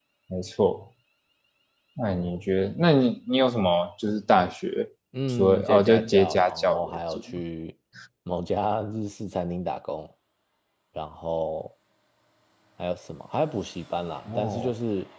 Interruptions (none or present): present